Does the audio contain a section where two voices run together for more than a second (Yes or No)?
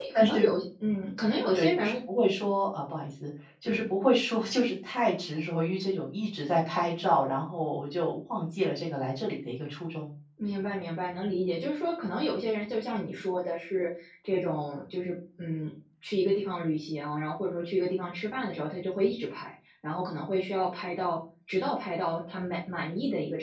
No